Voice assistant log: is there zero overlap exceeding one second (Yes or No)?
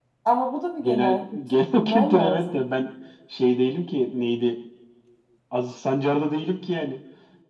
No